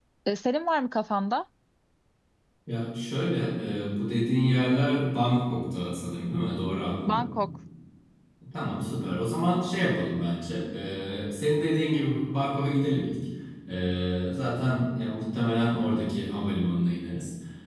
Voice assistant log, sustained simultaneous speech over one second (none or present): none